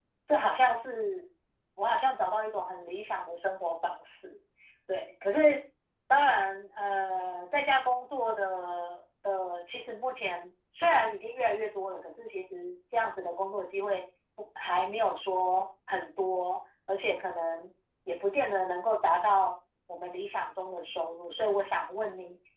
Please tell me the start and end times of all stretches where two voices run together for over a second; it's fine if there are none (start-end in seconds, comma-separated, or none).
none